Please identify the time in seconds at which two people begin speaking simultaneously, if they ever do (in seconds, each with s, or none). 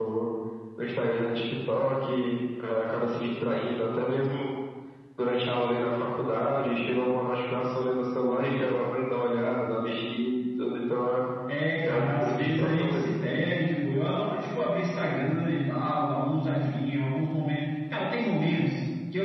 11.8 s